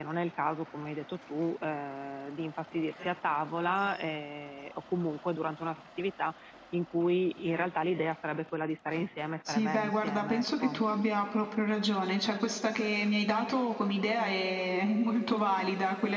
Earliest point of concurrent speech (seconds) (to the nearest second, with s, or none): 9 s